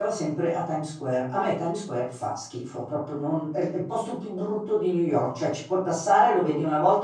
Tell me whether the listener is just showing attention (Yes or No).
Yes